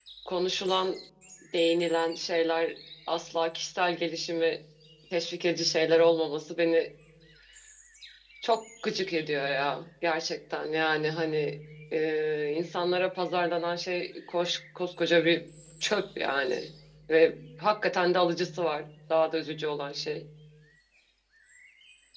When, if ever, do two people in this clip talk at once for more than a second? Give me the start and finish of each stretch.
none

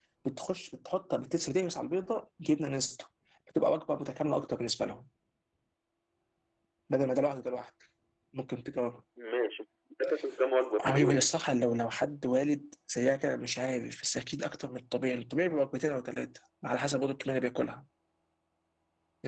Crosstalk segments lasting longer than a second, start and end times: none

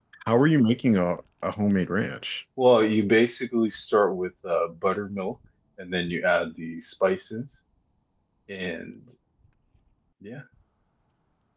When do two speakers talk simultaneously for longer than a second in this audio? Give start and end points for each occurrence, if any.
none

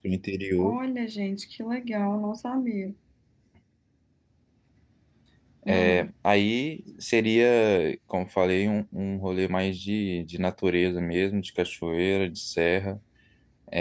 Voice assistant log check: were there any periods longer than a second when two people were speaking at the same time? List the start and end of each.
none

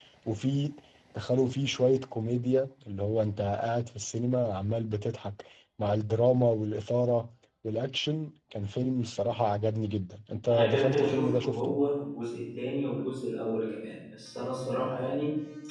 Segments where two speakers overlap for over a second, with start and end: 10.5-11.8

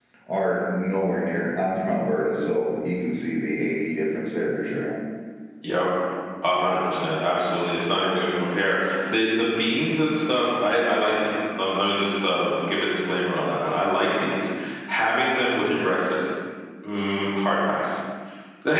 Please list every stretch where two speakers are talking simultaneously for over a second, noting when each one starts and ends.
none

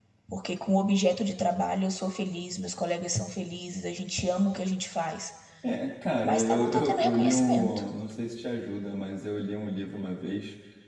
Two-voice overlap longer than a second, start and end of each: 6.2-7.8

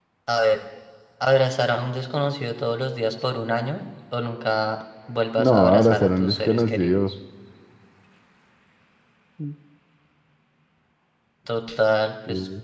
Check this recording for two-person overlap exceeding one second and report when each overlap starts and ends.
5.4-7.0

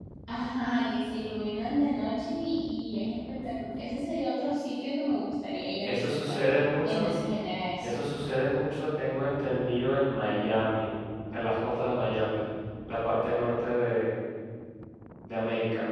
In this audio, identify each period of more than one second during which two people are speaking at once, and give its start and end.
none

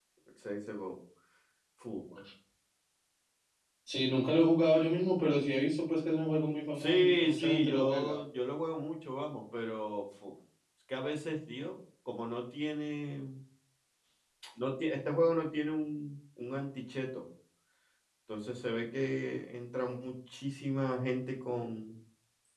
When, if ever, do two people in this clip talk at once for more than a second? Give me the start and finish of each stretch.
6.8-8.2

